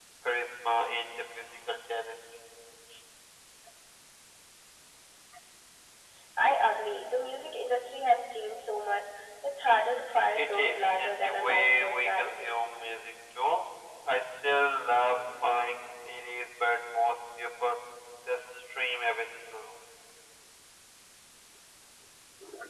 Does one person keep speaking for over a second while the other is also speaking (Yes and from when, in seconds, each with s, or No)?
Yes, from 10.3 s